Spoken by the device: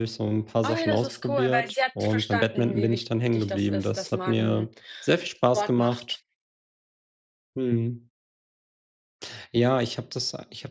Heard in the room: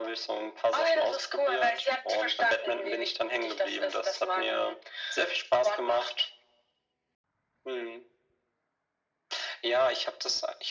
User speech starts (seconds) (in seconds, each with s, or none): none